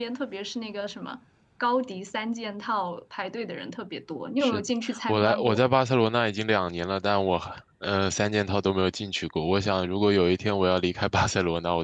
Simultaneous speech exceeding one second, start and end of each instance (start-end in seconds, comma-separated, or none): 4.4-5.6